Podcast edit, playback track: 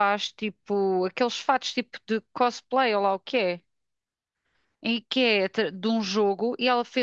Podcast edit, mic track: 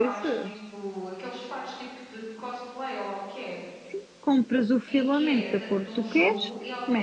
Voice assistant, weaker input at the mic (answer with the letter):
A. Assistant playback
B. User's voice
A